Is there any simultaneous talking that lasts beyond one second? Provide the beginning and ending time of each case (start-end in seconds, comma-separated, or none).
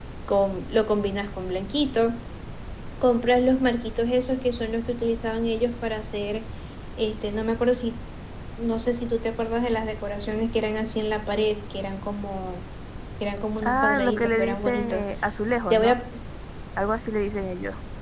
13.6-15.0